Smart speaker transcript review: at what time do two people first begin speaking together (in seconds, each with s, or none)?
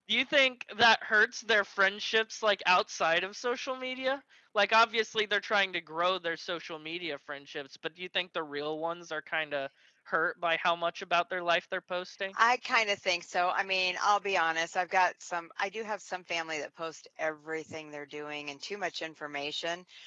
none